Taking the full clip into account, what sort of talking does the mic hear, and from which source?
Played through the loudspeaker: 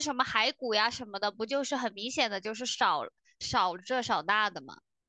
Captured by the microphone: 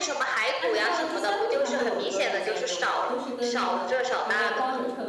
both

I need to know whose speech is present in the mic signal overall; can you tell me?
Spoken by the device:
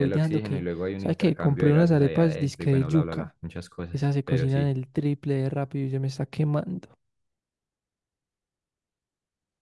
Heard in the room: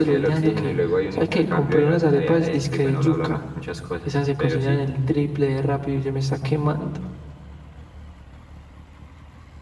echo only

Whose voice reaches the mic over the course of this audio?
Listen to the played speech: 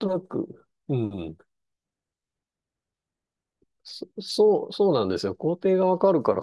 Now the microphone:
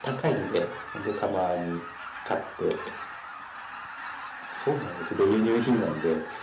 user only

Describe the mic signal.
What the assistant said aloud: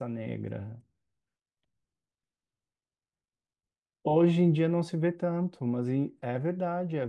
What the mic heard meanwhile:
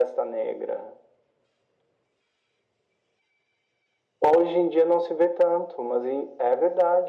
echo only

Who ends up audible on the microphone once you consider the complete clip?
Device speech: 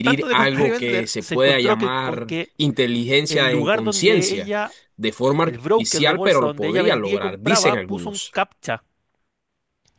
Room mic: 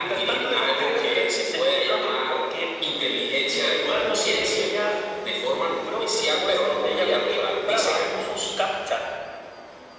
echo only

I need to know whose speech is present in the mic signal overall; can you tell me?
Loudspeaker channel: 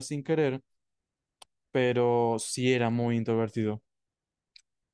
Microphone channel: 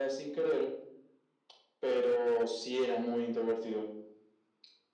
echo only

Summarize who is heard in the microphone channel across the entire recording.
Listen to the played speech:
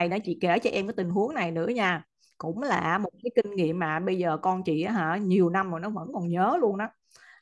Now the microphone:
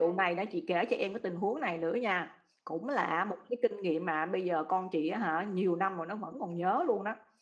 echo only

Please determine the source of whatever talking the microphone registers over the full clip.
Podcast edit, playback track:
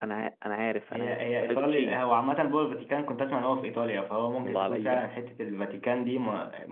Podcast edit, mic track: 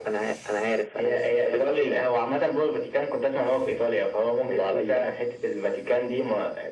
echo only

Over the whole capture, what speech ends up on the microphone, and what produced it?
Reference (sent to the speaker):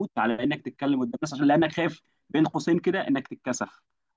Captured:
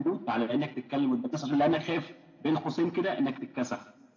echo only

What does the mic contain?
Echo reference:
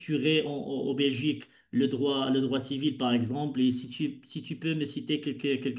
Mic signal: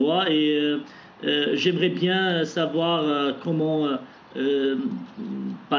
user only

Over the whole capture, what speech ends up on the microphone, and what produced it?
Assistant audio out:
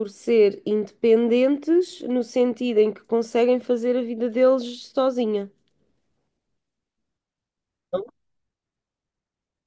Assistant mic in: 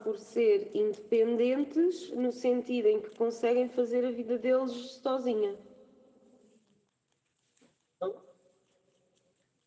echo only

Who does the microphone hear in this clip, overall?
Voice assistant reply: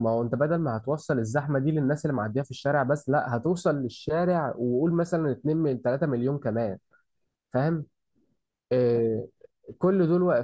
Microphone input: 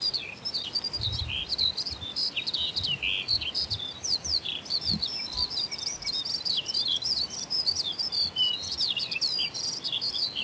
neither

